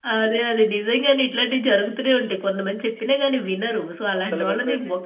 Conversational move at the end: listening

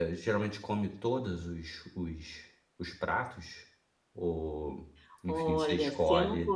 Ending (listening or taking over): taking over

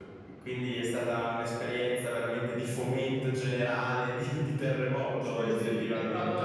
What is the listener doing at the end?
taking over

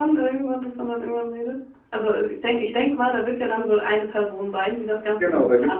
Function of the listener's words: taking over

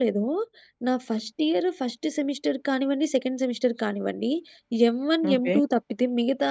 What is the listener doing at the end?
listening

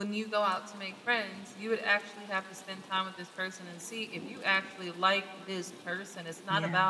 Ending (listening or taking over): listening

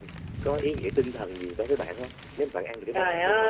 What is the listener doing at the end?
taking over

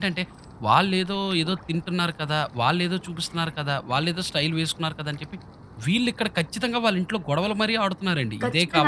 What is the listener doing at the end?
taking over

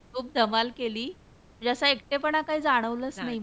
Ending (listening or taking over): listening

